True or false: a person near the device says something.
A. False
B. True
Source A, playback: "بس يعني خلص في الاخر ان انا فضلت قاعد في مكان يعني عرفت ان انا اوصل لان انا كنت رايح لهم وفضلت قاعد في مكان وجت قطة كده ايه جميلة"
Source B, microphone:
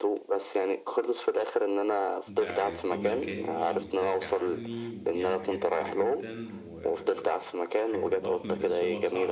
B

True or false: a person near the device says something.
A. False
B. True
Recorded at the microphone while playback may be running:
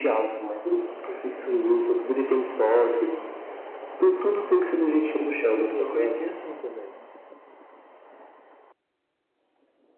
B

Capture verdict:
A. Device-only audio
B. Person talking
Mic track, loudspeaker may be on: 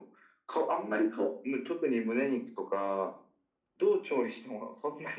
A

